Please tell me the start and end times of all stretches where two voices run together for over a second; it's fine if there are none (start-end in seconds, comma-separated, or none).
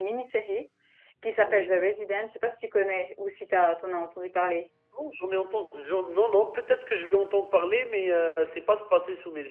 none